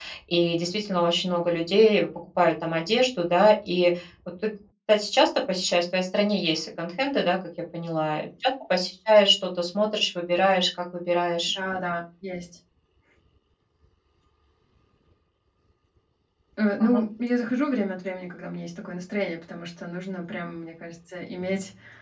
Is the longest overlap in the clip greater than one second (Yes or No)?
No